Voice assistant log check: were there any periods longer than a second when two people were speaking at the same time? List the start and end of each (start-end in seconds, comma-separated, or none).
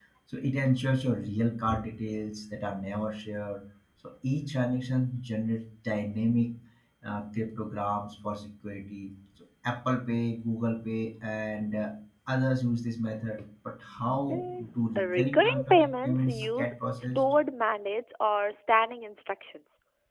15.2-17.2